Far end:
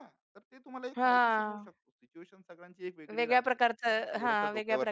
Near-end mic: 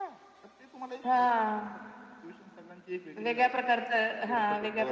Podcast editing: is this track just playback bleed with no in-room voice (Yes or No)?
Yes